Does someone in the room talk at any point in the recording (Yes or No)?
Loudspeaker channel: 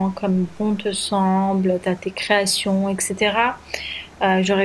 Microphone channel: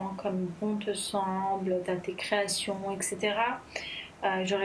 No